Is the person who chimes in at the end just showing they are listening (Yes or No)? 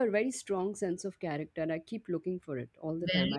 No